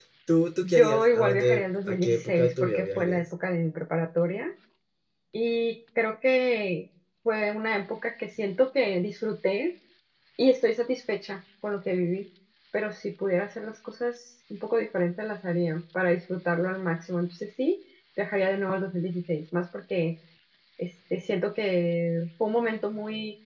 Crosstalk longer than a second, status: present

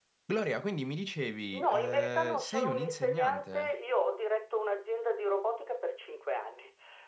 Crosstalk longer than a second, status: present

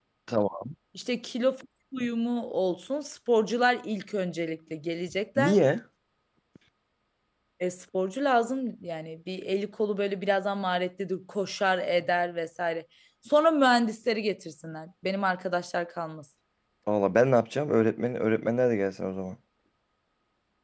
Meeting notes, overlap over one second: none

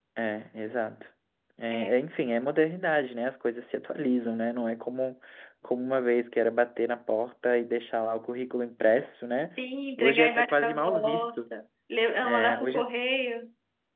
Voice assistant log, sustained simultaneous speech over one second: present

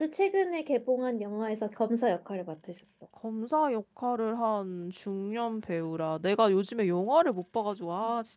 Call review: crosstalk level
none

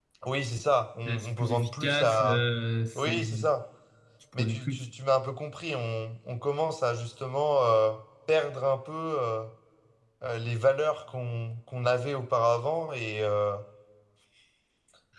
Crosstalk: present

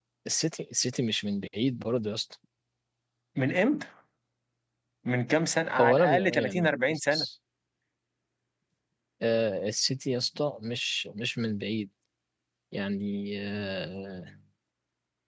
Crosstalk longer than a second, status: present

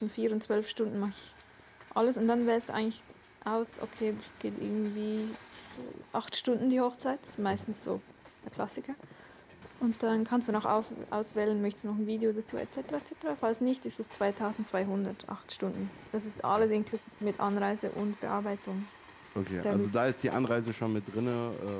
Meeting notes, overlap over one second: none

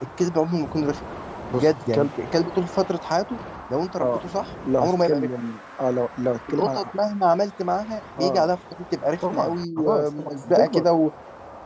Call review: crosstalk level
present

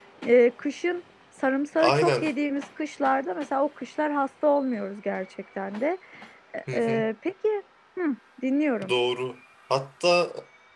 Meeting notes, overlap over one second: none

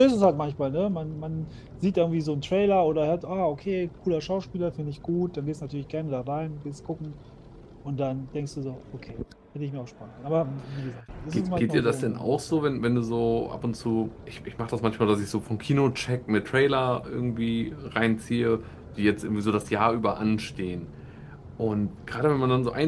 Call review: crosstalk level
present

